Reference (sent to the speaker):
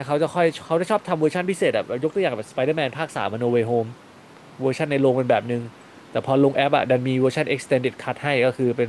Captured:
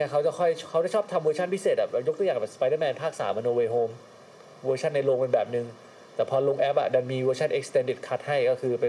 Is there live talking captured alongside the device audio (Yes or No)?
No